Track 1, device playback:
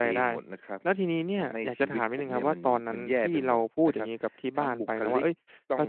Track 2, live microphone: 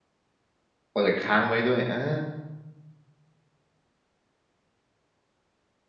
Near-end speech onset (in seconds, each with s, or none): 0.9 s